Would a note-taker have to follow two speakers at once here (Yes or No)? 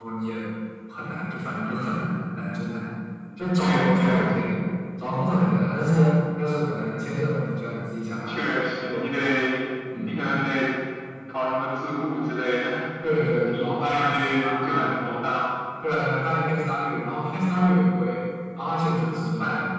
Yes